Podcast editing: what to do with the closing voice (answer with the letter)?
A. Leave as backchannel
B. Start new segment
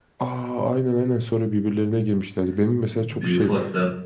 A